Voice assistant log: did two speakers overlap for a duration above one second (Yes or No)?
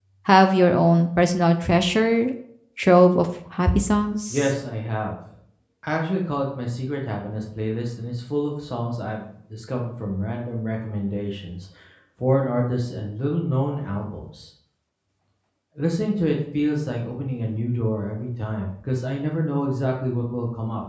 No